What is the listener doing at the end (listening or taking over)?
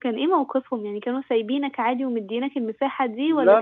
taking over